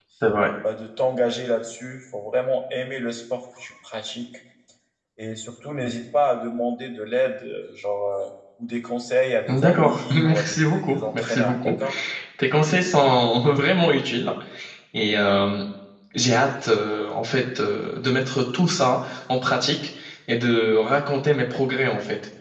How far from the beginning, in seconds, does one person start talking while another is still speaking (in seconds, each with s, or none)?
9.5 s